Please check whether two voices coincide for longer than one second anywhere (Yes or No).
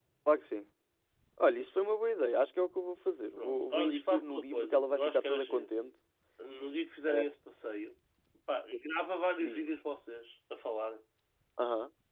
Yes